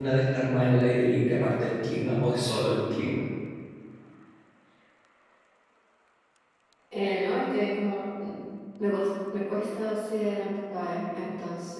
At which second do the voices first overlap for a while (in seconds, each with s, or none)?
none